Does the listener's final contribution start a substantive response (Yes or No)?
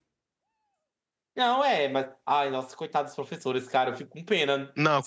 Yes